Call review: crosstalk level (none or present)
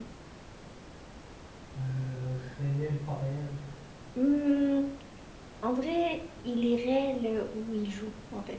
none